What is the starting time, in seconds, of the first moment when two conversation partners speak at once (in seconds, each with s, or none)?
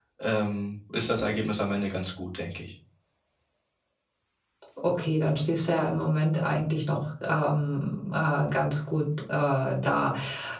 none